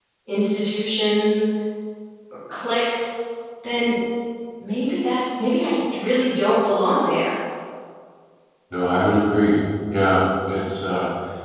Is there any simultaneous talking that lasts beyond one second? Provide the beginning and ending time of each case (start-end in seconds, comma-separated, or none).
none